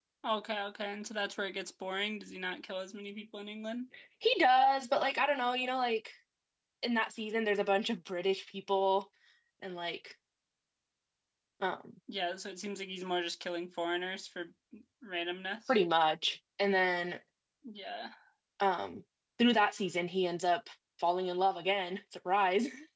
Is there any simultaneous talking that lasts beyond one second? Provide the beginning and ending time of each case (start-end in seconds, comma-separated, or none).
none